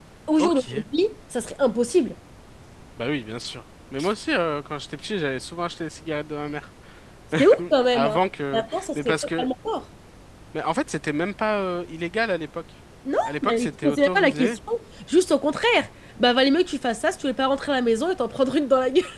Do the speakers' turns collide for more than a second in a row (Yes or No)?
Yes